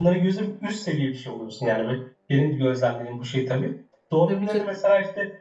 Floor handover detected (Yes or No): No